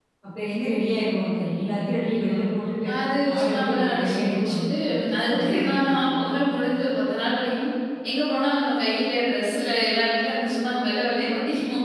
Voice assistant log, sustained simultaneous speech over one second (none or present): present